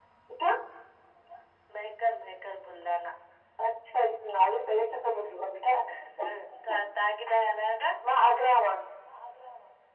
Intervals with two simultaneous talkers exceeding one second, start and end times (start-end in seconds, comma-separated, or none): none